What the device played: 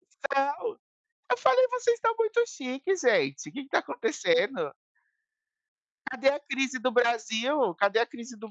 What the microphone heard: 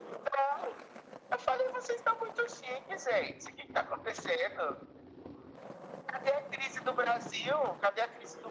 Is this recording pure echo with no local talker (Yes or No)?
Yes